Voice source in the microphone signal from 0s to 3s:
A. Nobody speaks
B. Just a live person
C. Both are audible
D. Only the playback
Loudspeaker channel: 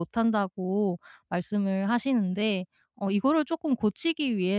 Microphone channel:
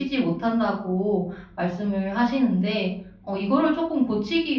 D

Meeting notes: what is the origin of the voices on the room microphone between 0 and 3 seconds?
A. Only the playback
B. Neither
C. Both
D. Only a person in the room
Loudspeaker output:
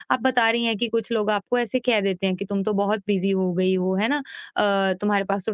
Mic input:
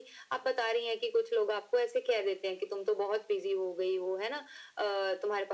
A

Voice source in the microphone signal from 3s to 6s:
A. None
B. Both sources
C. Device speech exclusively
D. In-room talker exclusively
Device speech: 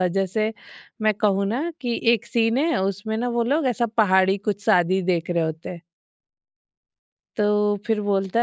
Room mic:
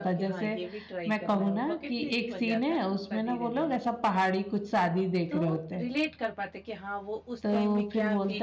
B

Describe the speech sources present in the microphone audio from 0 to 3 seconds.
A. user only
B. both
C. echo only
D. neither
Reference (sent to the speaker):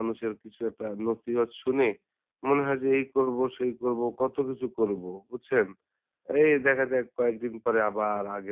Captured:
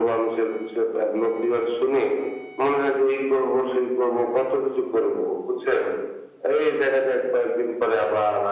C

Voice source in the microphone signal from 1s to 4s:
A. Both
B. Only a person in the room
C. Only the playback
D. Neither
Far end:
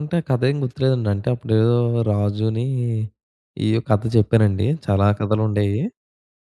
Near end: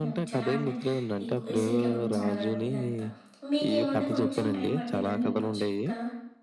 A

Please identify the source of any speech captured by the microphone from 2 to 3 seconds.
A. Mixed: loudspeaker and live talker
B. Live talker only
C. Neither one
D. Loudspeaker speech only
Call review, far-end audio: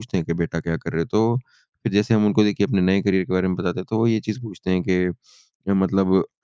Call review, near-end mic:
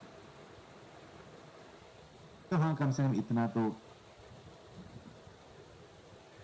B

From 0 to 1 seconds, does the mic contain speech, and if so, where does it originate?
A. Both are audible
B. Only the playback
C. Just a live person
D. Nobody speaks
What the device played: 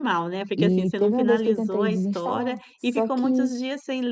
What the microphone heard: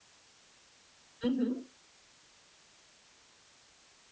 D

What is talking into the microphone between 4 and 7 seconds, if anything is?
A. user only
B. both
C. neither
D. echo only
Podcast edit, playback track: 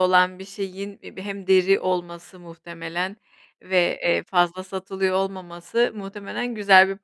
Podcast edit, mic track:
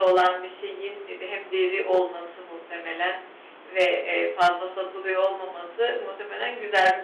D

